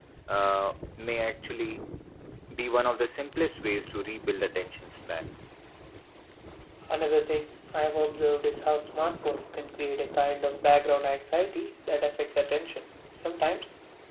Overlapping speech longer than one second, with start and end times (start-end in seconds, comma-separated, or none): none